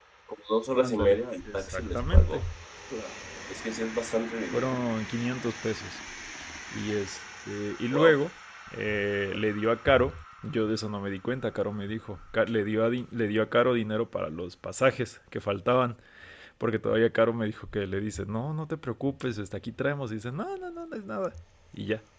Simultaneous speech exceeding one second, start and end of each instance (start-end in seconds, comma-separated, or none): 0.8-2.4